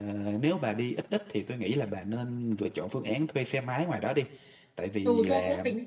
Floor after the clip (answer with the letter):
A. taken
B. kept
A